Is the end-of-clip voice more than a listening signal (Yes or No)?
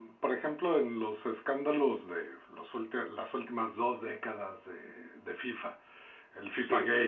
No